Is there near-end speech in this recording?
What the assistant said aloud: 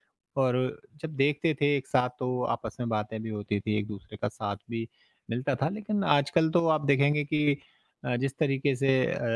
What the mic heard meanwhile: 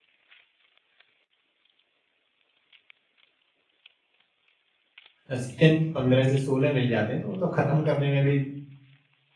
Yes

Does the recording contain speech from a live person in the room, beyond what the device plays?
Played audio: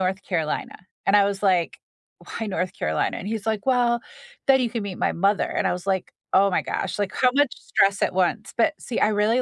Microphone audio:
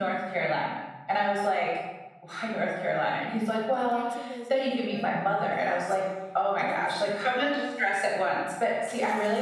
Yes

